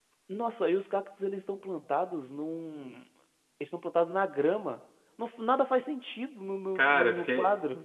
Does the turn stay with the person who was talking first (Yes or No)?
No